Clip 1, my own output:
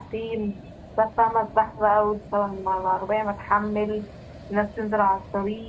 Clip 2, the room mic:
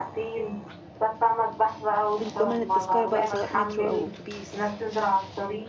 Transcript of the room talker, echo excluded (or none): الضمان التذكرة بقى سواء مترو أو أتوبيس